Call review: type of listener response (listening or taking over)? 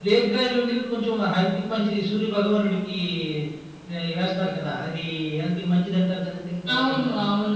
taking over